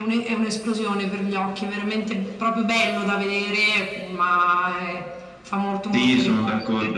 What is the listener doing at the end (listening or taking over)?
taking over